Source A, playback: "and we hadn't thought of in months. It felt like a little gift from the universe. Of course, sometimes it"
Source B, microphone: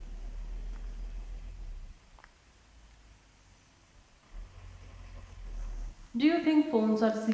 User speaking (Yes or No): Yes